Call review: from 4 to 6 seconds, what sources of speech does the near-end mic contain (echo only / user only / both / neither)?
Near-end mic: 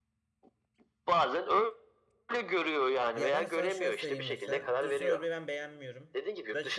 both